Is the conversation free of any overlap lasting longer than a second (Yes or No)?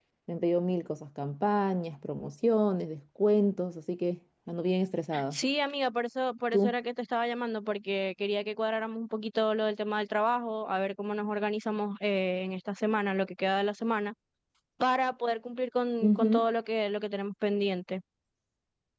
Yes